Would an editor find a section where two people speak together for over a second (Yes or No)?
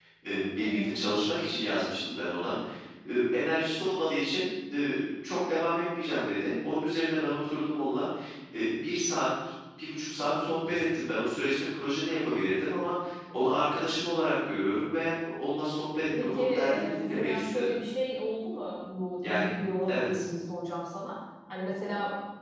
Yes